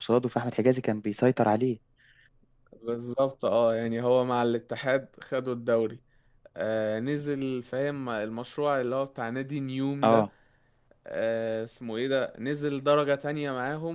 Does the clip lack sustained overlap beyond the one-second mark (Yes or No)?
Yes